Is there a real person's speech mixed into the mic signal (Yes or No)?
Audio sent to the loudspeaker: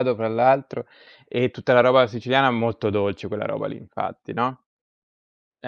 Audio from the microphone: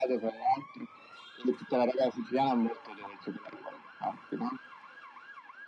No